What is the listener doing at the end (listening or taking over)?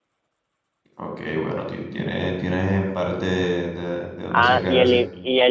taking over